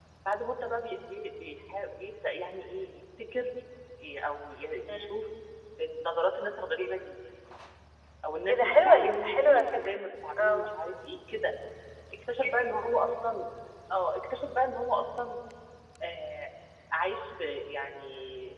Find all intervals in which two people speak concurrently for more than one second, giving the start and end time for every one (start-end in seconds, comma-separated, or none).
8.5-10.0